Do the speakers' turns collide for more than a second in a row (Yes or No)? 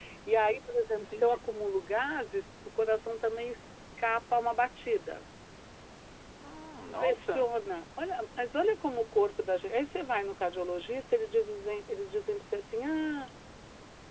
No